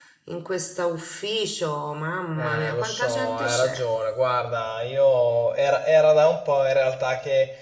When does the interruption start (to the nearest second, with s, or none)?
2 s